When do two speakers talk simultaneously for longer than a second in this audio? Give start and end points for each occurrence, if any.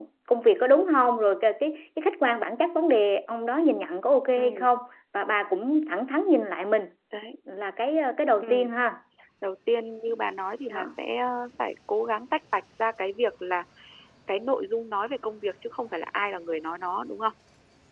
none

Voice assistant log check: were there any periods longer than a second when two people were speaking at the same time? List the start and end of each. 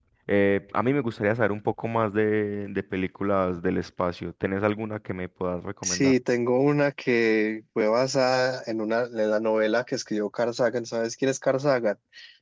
none

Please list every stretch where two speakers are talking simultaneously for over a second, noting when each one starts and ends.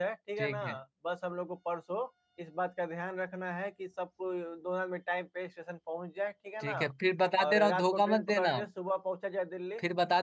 7.4-8.6

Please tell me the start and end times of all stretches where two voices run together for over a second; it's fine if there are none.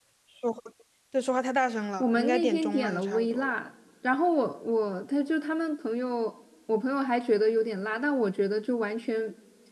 2.0-3.5

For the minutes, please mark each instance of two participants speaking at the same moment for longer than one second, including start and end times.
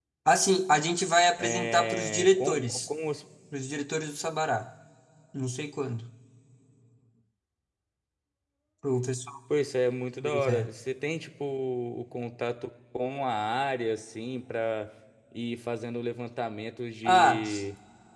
1.4-2.9

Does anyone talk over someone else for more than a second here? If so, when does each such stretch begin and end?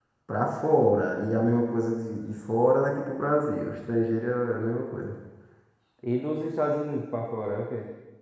none

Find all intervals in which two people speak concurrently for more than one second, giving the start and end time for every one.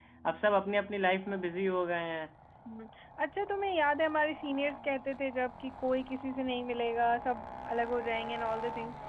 none

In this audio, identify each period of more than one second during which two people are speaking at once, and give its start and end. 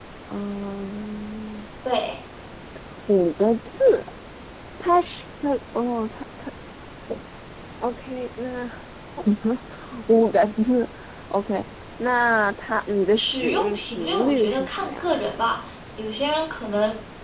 13.2-15.4

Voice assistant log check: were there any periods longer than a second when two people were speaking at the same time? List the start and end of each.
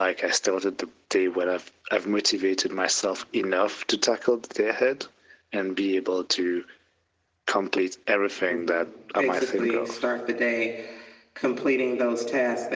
8.5-9.9

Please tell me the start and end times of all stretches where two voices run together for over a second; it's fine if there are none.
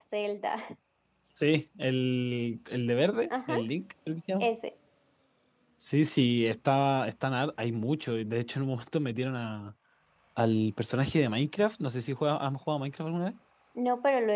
none

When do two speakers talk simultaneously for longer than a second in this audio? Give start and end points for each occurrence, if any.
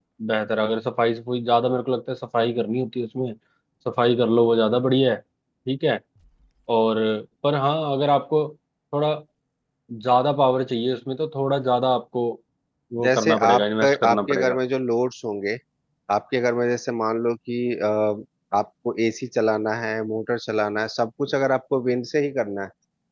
13.0-14.6

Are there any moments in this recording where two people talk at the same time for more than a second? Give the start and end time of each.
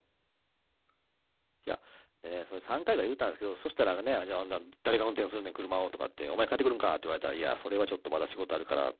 none

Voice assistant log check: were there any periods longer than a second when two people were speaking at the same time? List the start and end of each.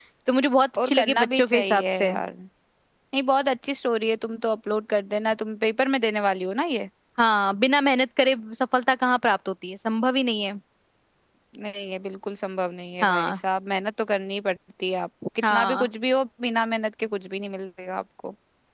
0.8-2.1

